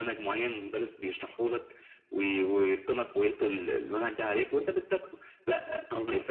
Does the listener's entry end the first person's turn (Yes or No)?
No